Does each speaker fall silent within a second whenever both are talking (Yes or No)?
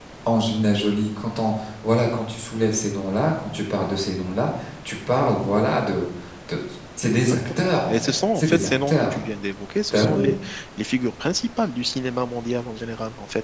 No